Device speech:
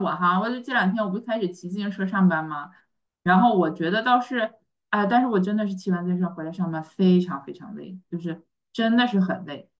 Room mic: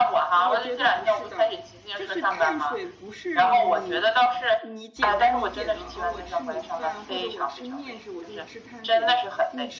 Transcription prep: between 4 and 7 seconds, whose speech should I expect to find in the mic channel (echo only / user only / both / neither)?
both